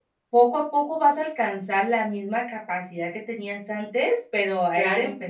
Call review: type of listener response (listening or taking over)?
listening